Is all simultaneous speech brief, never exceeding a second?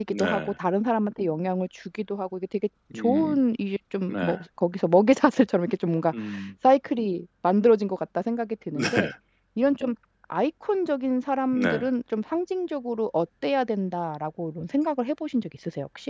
Yes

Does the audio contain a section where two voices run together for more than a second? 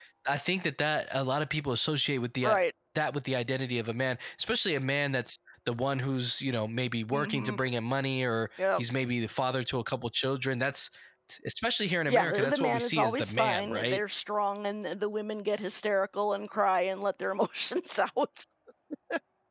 Yes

